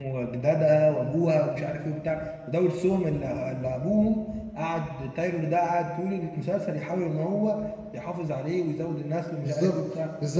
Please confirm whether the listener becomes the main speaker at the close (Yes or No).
Yes